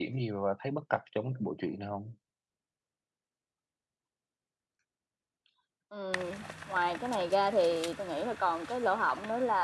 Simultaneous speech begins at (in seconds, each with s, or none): none